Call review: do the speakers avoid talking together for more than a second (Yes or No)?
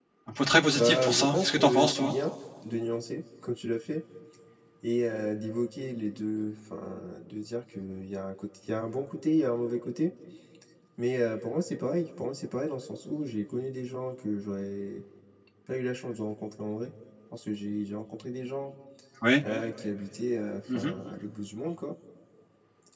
No